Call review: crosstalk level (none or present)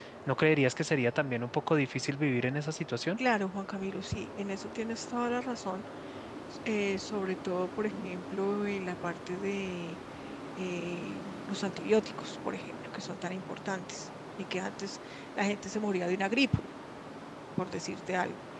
none